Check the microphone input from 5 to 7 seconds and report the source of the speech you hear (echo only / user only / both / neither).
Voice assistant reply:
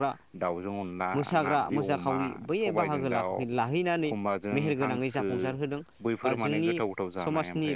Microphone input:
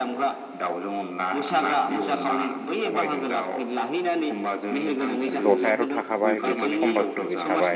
both